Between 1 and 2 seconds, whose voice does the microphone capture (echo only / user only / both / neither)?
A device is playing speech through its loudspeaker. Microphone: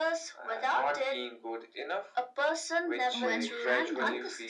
echo only